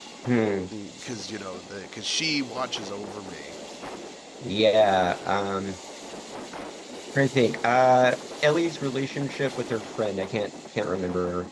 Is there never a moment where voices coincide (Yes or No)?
Yes